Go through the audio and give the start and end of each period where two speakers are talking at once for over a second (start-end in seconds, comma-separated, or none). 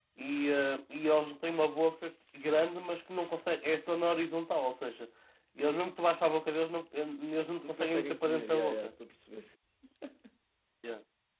7.6-8.9